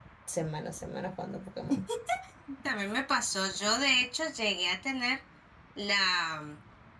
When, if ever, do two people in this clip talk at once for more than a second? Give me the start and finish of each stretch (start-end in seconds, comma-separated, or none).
none